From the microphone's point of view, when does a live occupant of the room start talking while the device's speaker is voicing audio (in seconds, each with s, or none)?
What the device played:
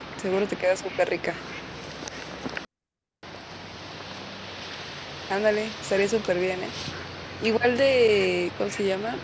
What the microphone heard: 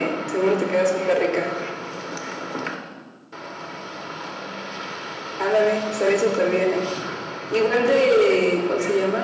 none